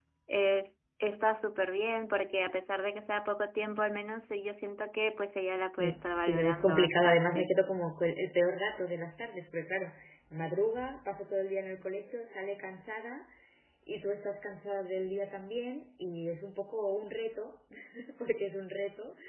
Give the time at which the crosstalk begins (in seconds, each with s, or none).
5.8 s